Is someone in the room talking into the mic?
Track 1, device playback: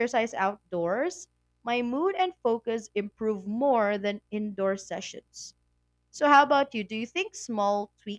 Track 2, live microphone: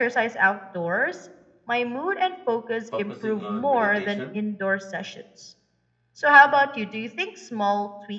Yes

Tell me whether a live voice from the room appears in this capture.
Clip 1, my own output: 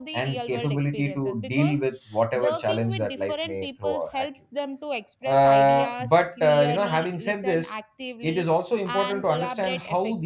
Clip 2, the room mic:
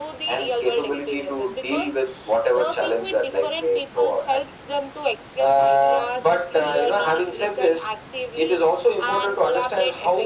No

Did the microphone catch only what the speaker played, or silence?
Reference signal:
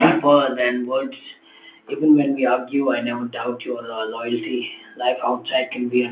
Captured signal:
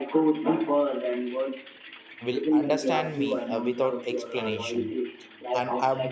No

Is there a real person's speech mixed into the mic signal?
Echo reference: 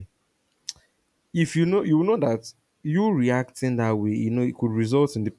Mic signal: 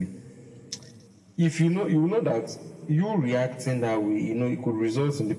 No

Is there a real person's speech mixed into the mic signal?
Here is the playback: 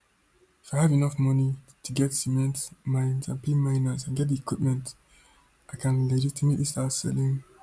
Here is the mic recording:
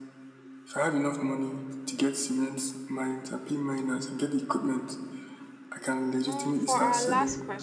Yes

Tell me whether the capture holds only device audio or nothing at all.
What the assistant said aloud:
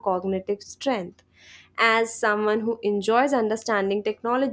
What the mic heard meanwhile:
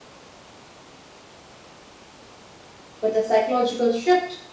No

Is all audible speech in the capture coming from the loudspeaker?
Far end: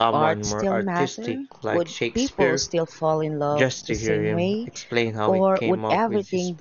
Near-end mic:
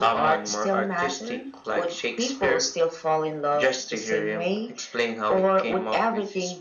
Yes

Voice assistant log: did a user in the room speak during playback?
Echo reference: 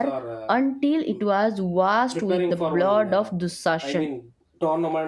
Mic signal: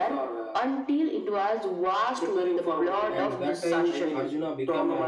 Yes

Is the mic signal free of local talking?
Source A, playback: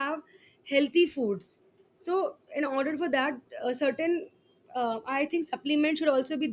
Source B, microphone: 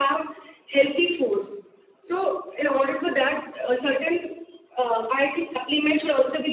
Yes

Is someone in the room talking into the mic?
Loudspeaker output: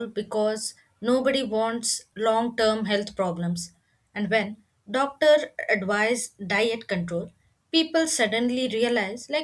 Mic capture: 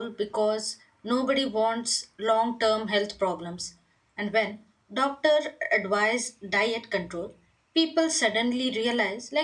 No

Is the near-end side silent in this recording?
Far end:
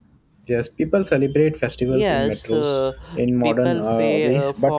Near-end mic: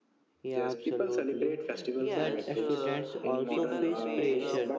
No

